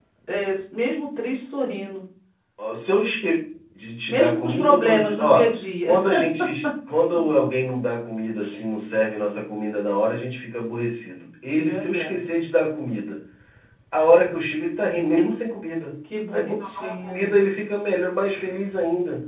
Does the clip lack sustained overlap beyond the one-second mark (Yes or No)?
No